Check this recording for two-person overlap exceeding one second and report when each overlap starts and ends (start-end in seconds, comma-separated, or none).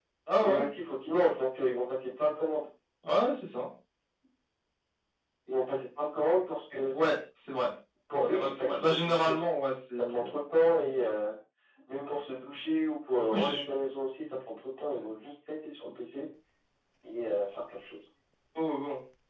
8.1-9.4